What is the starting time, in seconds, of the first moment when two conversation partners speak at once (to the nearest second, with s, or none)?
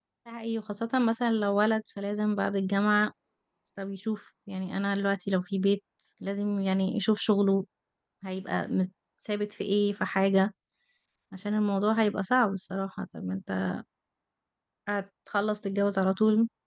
none